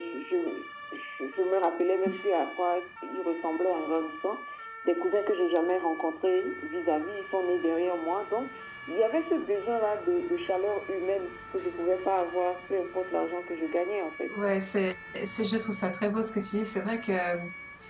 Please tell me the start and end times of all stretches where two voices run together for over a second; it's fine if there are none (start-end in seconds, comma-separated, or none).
none